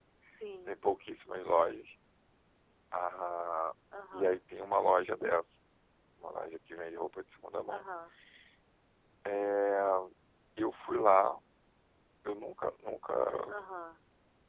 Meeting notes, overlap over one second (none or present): none